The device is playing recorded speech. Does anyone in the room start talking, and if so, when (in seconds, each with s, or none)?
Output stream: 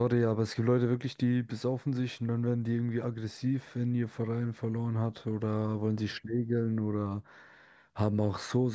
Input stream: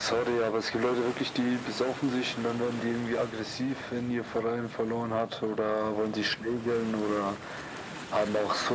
none